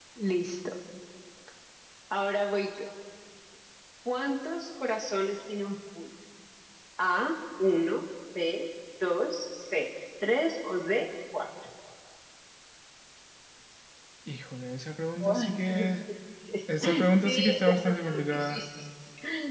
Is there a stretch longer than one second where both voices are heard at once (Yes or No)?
Yes